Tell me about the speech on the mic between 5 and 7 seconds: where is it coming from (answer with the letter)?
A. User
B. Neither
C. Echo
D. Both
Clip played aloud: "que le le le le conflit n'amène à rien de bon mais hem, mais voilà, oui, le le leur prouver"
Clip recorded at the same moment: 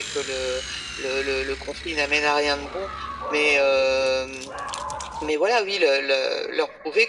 C